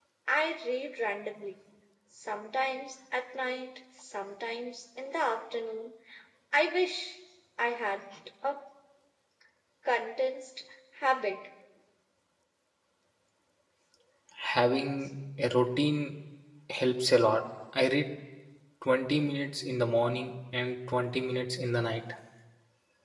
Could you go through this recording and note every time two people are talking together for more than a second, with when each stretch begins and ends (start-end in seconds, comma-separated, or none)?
none